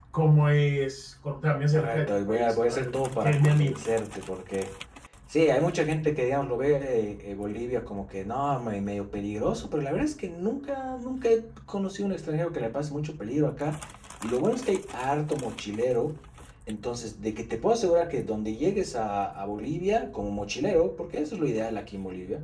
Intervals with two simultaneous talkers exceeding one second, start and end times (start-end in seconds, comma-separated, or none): 1.7-3.8